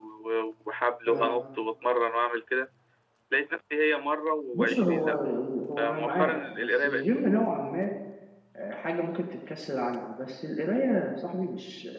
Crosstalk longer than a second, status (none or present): present